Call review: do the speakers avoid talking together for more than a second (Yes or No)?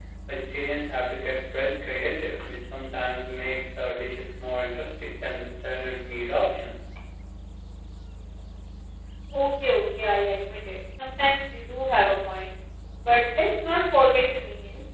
Yes